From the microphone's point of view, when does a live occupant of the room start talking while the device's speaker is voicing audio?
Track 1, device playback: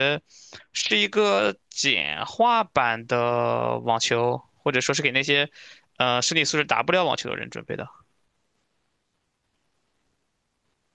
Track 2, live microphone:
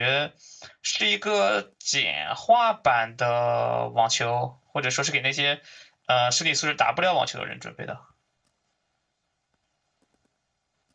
none

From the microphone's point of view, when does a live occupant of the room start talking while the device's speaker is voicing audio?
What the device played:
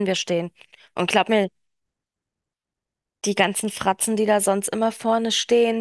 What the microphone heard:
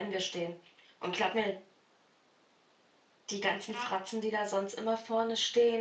3.6 s

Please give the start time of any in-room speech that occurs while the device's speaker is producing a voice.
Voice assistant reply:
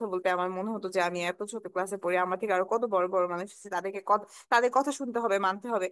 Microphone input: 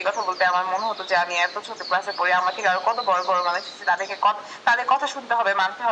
none

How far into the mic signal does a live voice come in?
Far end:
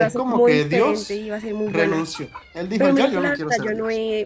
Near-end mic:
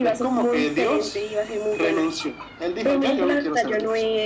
none

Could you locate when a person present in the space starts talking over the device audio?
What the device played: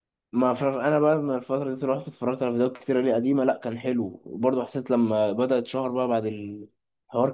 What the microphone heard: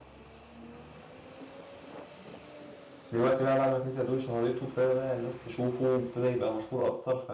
3.1 s

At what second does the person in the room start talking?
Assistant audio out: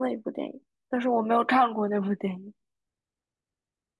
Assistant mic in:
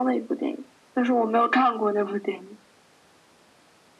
none

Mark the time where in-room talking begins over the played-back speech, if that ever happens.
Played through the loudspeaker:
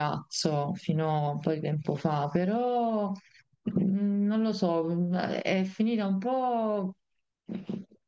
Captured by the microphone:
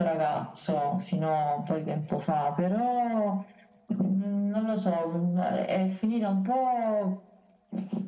none

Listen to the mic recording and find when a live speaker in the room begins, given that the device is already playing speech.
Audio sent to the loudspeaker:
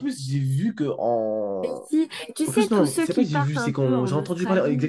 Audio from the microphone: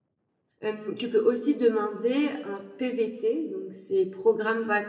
0.6 s

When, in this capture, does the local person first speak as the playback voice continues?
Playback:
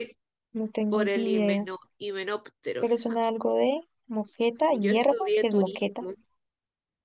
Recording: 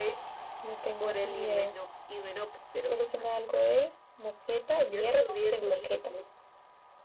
none

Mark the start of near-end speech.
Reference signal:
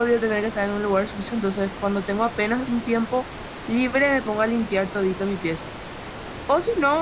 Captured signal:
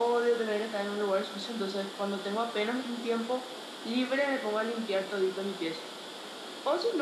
none

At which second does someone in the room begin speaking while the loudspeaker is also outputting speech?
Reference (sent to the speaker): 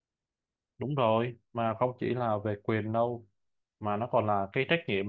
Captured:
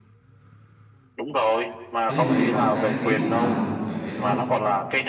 2.1 s

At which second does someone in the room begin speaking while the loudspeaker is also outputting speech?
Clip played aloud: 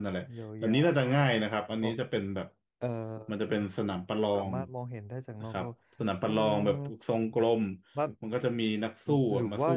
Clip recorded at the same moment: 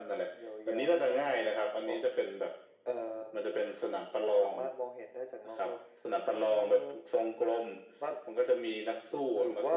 none

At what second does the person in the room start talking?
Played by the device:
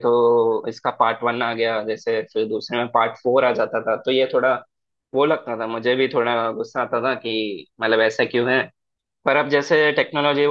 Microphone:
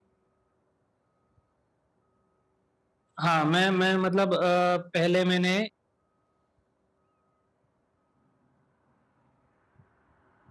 3.2 s

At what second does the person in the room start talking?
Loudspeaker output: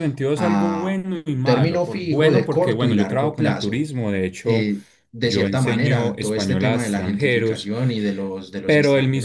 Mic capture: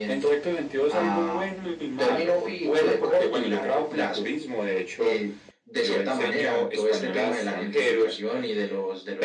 none

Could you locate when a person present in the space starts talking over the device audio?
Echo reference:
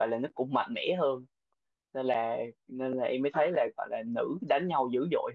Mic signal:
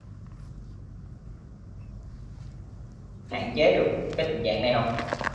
3.3 s

